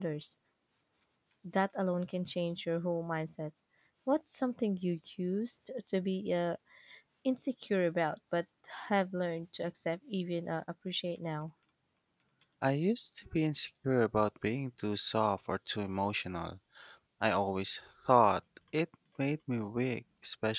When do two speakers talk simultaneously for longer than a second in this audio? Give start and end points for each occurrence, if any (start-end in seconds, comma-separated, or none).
none